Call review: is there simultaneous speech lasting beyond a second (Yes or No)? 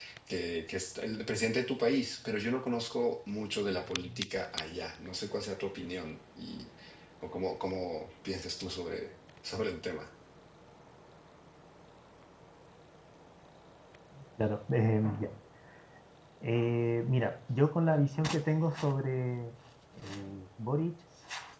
No